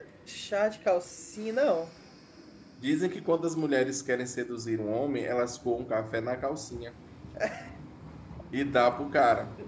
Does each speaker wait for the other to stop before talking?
Yes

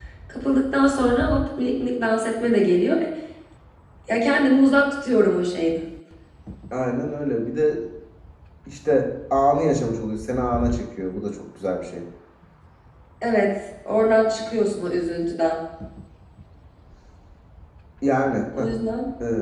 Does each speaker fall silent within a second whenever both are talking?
Yes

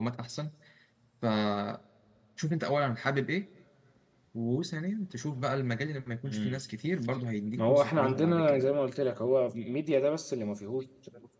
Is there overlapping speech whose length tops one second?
Yes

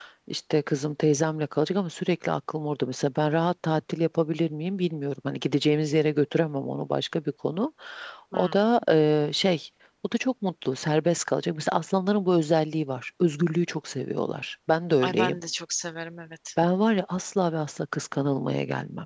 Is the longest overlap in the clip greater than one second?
No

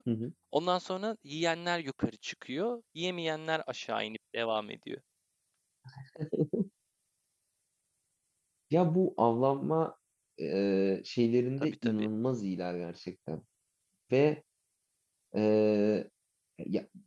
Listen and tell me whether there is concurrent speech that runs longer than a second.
No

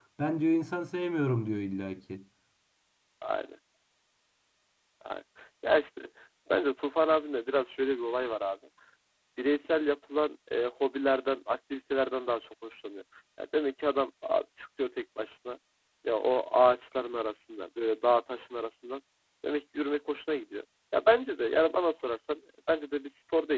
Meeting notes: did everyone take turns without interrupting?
Yes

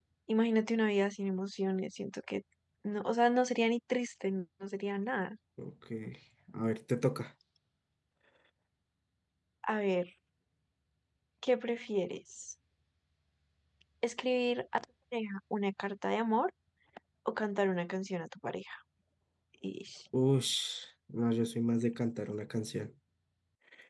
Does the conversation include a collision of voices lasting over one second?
No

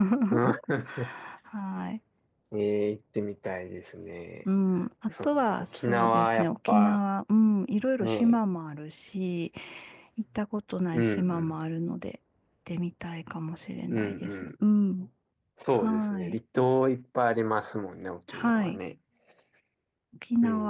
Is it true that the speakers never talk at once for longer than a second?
No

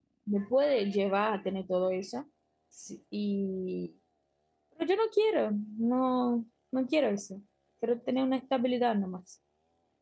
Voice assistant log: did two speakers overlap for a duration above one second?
No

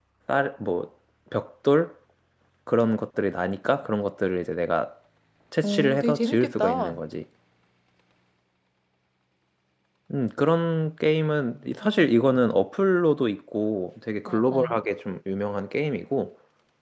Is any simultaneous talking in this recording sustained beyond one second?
Yes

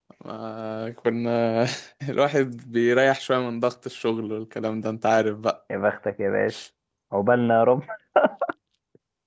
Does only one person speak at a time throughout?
Yes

